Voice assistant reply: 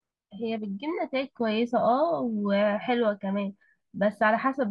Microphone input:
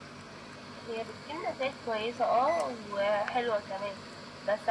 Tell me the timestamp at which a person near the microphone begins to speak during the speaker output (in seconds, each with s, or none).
none